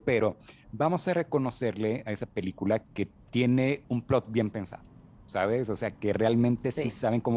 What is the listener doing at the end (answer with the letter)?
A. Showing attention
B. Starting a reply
A